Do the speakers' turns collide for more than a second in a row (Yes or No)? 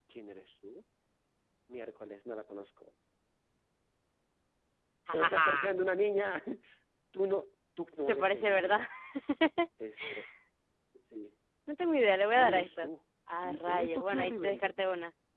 Yes